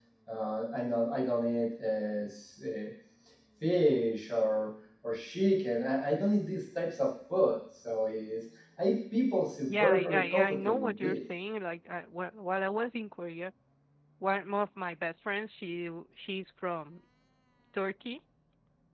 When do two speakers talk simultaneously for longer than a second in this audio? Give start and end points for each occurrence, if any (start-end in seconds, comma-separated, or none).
9.7-11.2